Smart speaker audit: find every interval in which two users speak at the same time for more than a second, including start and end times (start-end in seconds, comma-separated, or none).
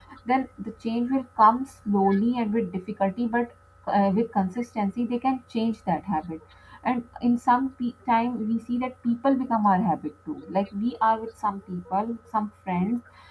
none